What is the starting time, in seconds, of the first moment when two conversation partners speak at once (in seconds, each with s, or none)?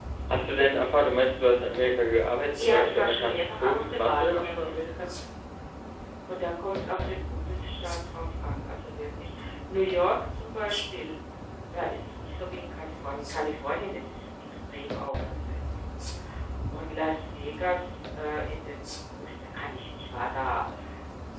2.6 s